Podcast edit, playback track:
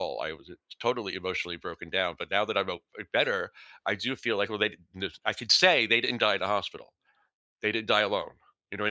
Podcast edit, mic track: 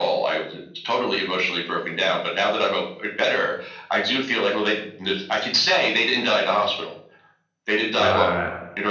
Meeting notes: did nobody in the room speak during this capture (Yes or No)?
No